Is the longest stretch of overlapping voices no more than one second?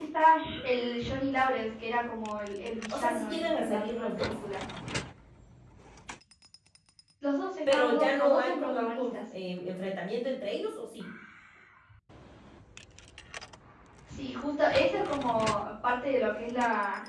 No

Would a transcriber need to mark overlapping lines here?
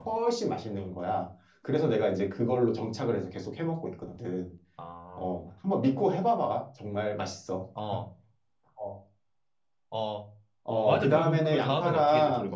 Yes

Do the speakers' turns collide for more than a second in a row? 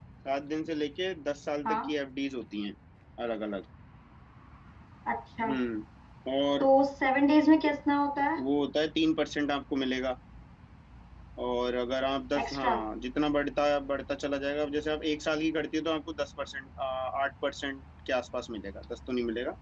No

